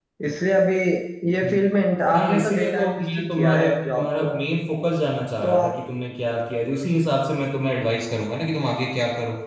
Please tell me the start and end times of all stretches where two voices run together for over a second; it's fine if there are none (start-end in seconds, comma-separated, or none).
2.1-4.3